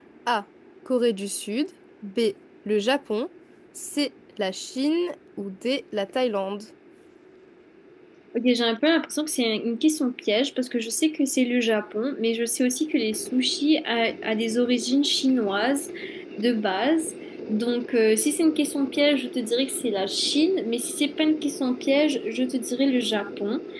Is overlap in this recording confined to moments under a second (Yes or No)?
Yes